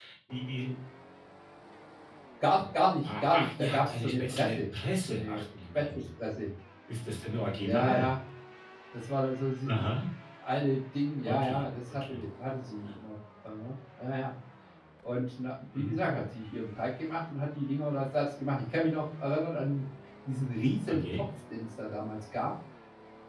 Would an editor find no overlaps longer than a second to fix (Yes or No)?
No